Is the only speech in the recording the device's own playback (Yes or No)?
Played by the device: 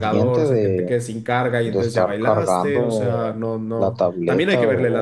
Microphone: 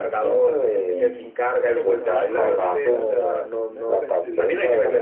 No